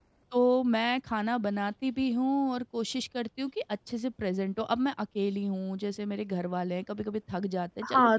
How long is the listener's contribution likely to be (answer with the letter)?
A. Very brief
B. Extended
B